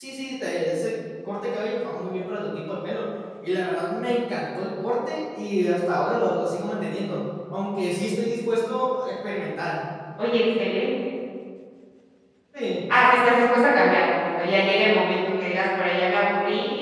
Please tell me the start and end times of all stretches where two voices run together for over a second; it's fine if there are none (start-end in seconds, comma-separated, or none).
none